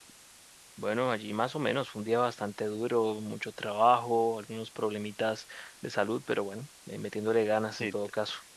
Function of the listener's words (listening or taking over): taking over